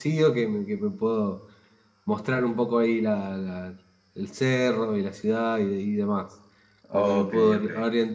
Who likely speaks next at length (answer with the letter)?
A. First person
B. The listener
A